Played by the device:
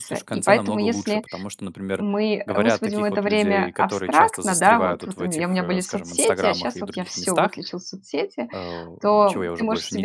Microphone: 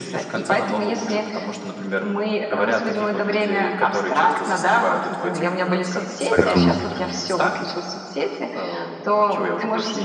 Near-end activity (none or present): present